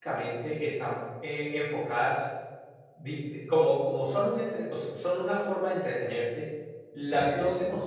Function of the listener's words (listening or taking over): listening